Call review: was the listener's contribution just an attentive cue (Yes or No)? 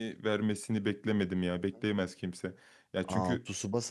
No